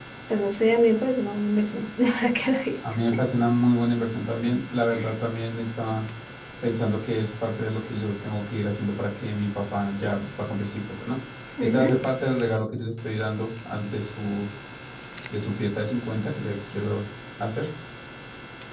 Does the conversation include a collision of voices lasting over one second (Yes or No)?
No